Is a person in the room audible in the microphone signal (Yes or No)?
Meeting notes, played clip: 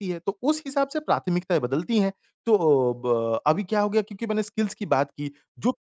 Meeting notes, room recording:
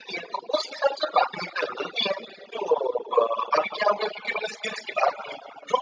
No